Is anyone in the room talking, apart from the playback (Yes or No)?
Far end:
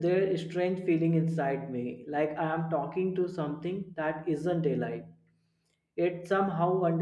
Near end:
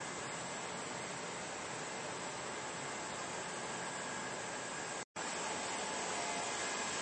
No